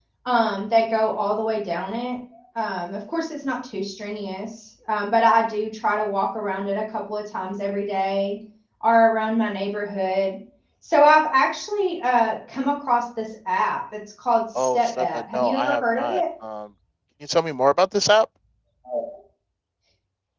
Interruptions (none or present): present